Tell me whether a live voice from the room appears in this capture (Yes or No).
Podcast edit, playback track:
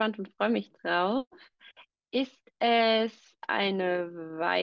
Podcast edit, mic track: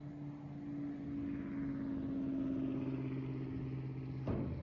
No